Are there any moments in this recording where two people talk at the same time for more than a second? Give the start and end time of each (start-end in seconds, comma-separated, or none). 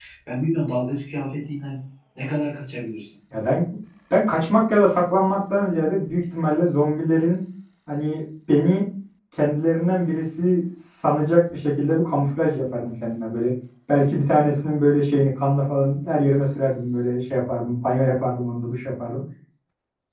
none